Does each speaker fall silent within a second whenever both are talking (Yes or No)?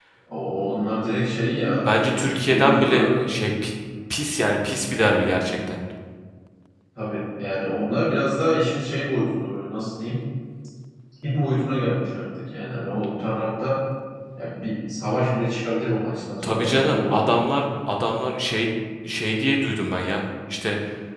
No